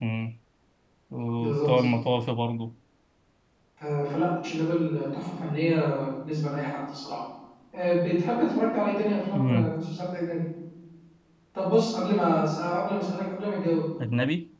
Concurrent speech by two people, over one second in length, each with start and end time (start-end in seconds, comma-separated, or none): none